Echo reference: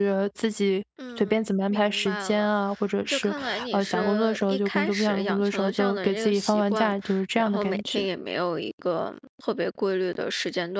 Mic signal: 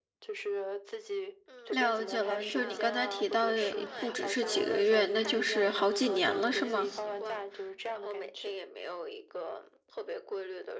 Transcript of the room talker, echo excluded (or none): 了解了。就是你刚才提到的，不只是几个月，那就是好几年了，是吗？